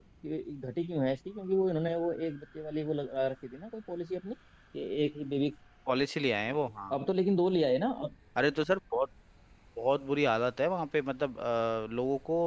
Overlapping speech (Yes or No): No